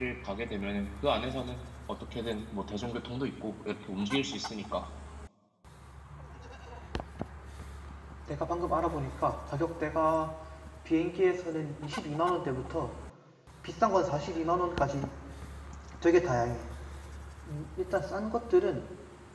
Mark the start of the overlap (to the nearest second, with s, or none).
none